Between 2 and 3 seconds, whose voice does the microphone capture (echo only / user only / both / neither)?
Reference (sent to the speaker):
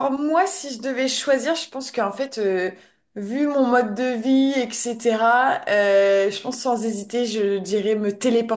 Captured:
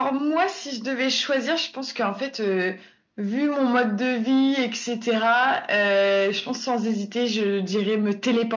echo only